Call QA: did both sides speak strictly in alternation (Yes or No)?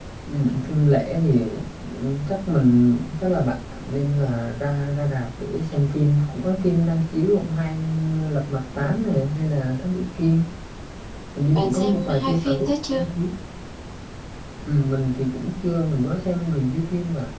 No